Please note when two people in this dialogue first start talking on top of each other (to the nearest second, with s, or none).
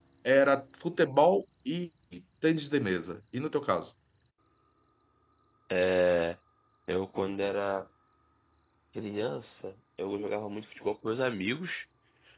none